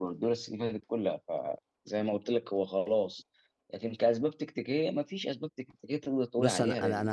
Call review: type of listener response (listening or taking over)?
taking over